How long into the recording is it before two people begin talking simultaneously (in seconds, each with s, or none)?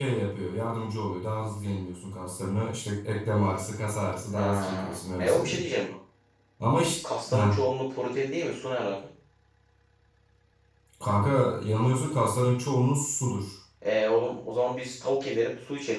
4.3 s